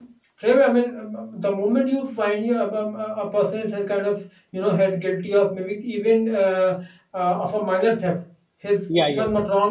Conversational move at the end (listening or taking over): listening